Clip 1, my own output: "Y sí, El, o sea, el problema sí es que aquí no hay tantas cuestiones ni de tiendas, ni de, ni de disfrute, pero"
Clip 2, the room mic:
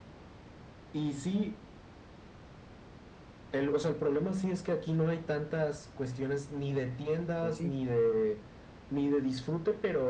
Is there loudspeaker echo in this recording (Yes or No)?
Yes